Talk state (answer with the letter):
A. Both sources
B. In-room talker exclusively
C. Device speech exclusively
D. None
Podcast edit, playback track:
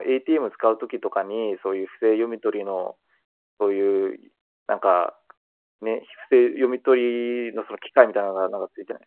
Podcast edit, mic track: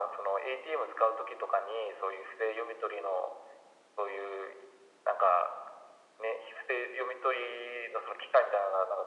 C